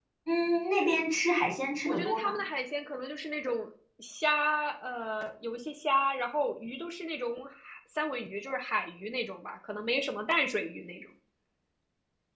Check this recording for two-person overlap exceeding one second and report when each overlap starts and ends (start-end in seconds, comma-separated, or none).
none